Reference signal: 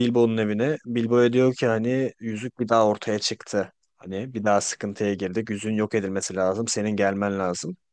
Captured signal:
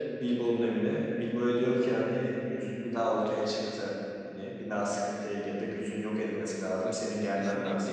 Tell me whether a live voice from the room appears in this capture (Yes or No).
Yes